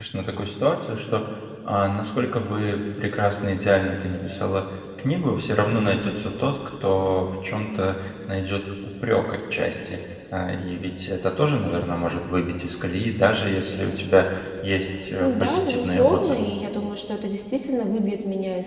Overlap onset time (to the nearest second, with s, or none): 15 s